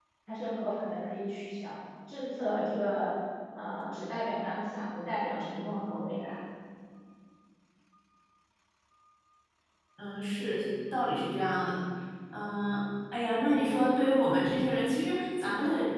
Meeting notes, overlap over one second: none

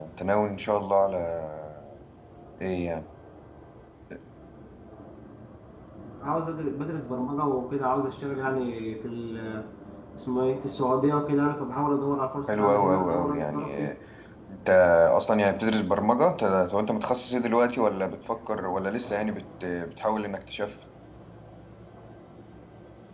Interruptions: present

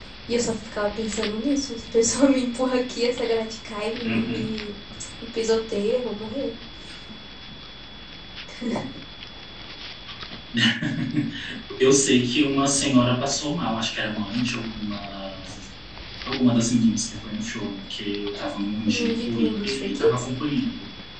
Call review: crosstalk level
present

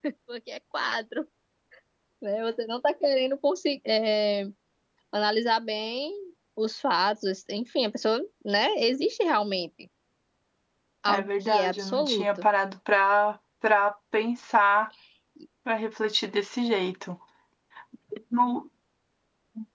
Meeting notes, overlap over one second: present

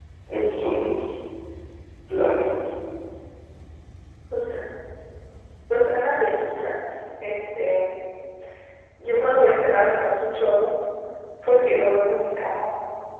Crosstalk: none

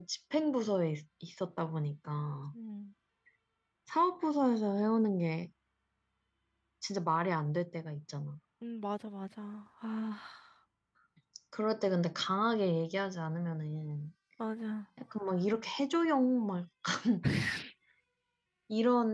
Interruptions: none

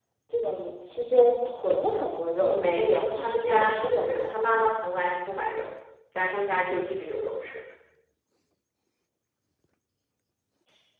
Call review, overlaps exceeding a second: present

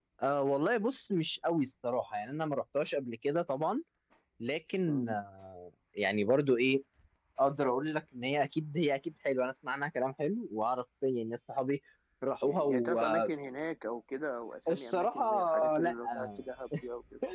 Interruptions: present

